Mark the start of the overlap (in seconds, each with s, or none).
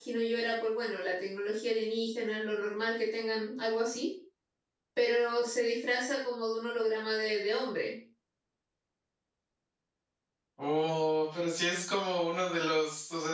none